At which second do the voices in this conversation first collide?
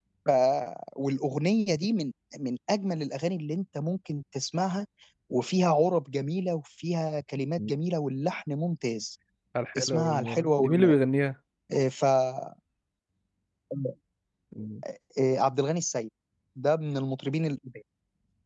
9.8 s

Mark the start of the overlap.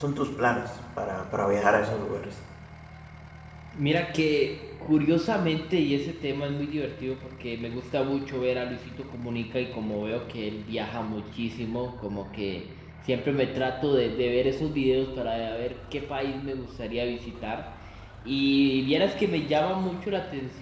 none

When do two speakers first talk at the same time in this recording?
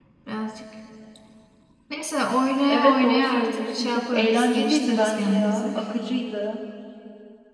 2.7 s

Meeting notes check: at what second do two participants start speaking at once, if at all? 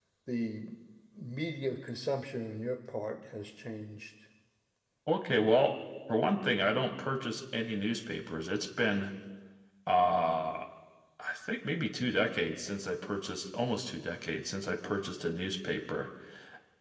none

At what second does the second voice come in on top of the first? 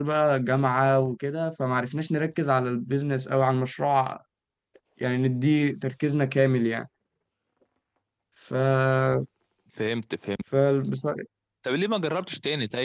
none

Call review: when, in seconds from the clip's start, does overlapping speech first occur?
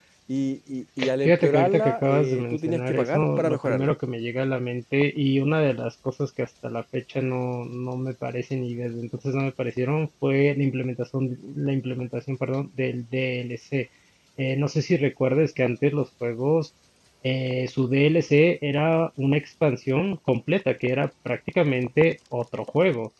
1.2 s

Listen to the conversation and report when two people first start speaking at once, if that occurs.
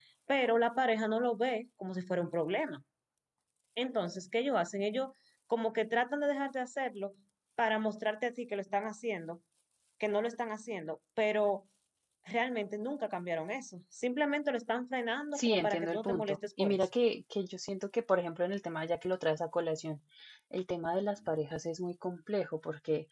15.4 s

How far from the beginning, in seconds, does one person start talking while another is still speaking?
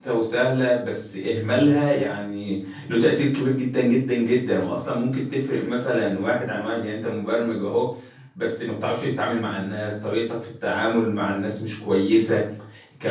none

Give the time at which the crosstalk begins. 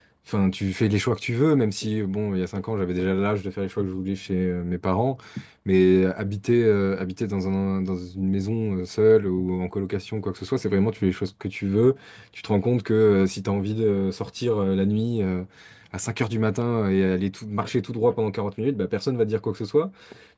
none

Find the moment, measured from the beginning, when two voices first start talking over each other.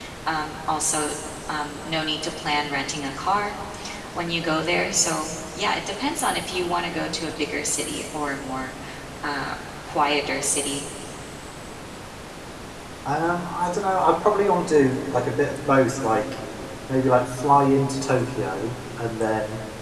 none

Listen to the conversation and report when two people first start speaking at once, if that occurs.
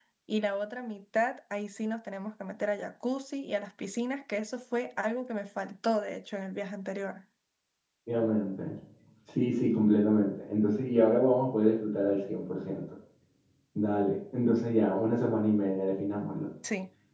none

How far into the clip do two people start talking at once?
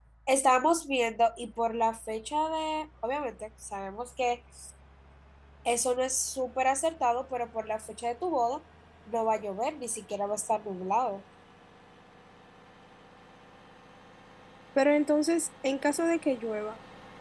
none

